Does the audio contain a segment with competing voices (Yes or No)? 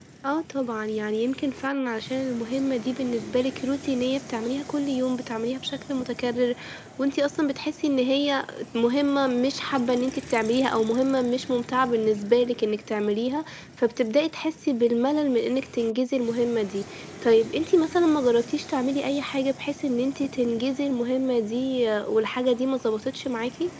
No